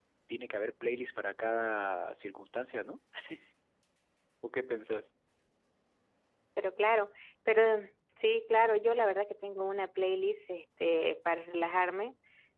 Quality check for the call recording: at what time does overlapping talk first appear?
none

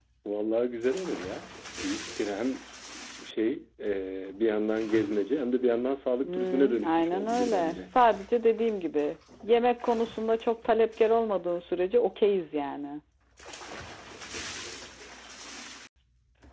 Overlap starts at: 6.2 s

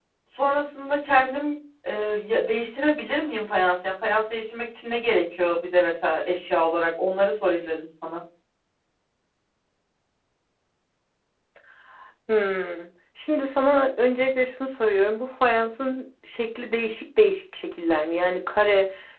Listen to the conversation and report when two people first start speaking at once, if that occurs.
none

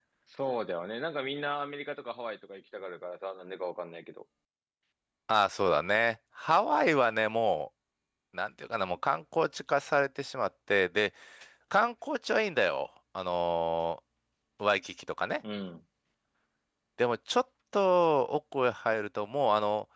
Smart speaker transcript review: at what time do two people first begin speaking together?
none

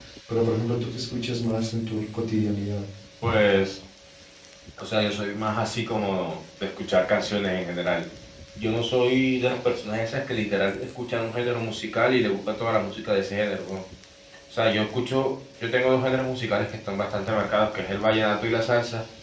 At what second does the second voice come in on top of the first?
none

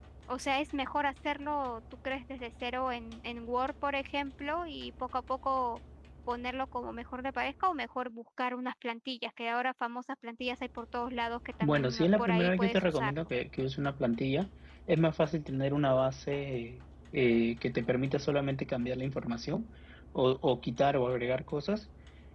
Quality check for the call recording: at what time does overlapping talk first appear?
11.6 s

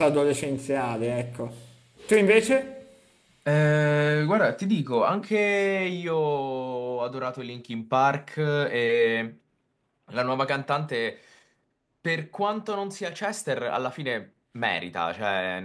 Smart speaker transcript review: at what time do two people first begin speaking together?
none

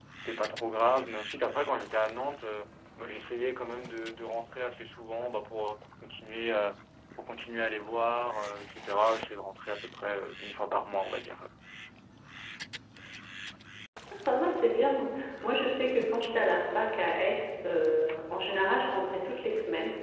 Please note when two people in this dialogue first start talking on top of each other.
none

